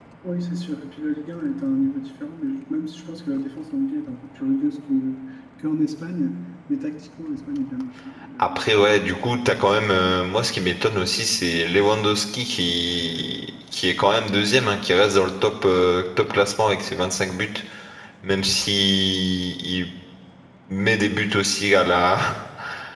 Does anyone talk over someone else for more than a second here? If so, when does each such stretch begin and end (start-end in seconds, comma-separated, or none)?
none